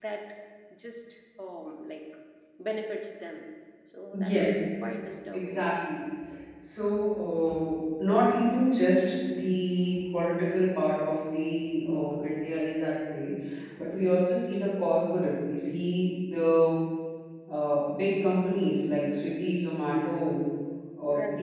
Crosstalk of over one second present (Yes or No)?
No